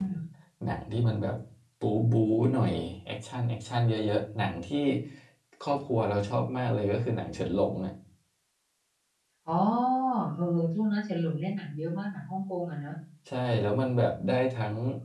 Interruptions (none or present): none